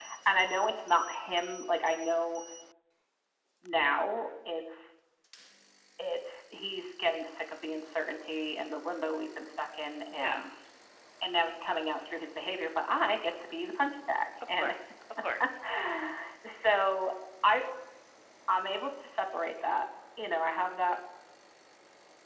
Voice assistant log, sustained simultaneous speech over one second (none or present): none